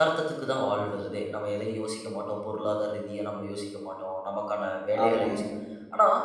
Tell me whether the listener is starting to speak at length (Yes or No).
No